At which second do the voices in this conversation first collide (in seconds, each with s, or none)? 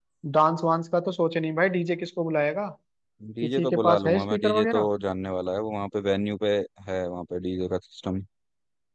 3.4 s